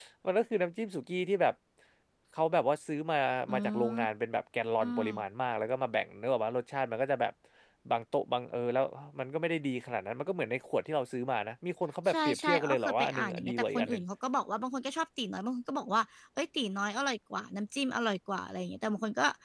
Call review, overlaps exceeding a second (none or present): present